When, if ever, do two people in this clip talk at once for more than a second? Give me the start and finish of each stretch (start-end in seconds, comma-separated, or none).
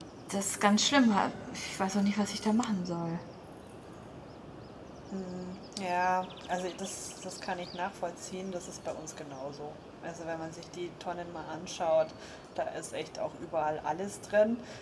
none